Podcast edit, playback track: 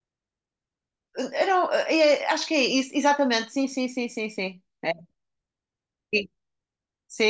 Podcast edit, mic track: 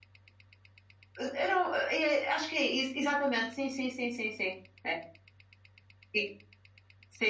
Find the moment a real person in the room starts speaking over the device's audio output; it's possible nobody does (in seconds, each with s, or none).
none